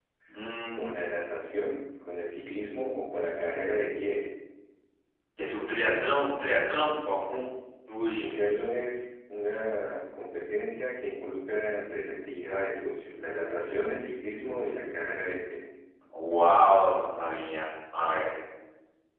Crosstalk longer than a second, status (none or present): none